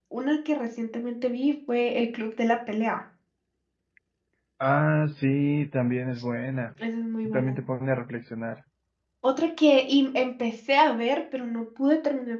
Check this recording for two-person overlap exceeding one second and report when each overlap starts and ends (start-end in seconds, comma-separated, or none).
none